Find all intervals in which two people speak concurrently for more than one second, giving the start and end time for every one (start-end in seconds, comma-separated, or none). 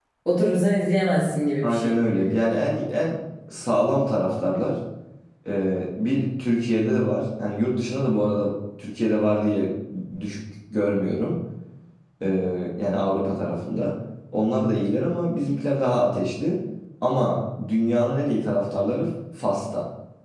none